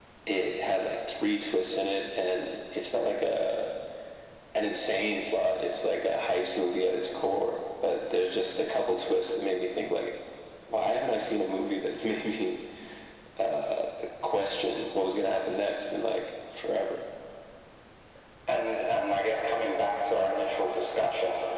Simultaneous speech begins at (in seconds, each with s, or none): none